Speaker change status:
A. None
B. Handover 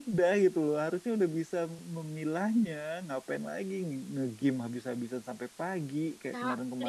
B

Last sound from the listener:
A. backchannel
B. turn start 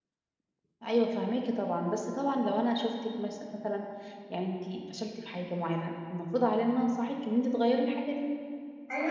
B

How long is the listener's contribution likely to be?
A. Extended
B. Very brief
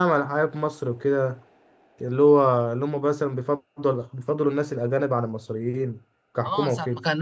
A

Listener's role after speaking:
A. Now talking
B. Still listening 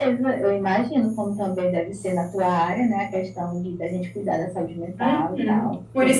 A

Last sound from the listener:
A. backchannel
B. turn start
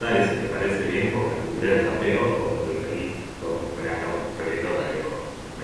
B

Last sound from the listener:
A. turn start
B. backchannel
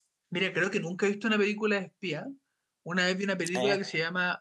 B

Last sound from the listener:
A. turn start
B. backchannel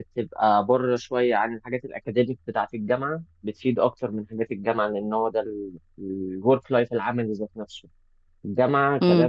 B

